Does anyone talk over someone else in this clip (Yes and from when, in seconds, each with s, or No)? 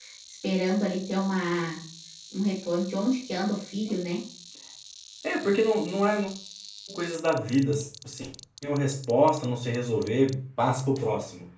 No